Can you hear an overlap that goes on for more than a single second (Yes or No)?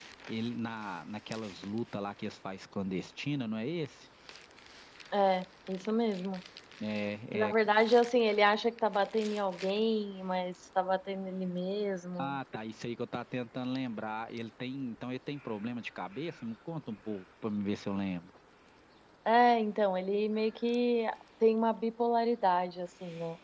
No